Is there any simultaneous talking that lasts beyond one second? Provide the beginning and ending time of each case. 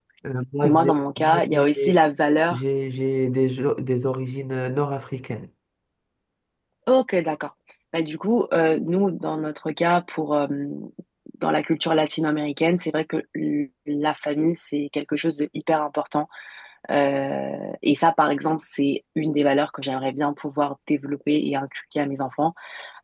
0.6-2.0

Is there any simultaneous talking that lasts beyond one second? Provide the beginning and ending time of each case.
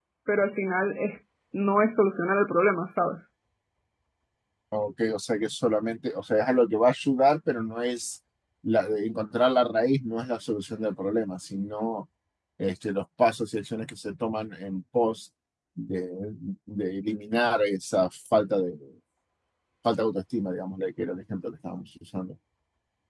none

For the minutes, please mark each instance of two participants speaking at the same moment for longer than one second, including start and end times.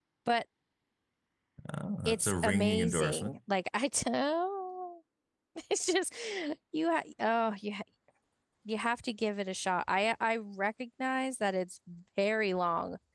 2.0-3.4

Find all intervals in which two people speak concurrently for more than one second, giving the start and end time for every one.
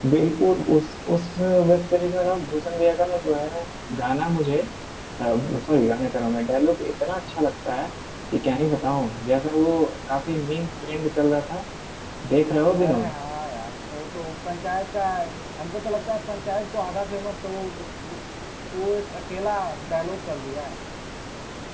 none

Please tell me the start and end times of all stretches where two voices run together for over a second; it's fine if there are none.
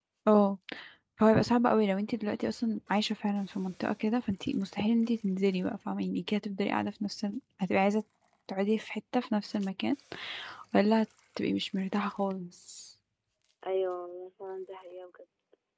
none

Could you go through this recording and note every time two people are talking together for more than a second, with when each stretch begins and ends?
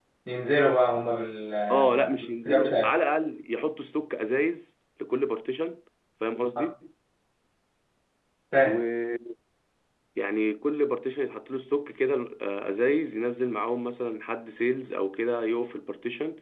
1.7-2.9

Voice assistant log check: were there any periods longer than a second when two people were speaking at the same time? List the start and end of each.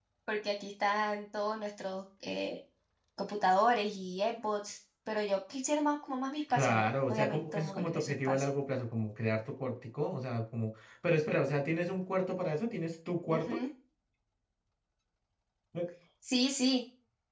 6.5-8.5

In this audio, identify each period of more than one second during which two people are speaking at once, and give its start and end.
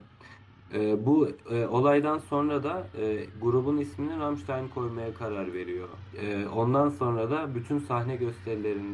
none

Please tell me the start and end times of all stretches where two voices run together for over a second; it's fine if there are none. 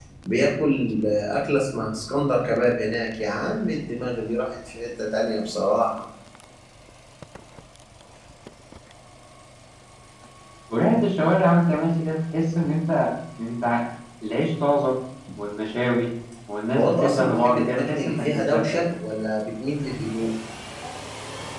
16.8-18.8

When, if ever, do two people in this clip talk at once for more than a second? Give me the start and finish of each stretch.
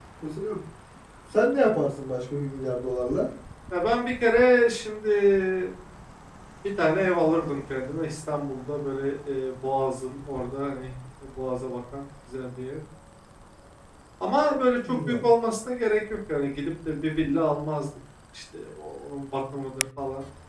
none

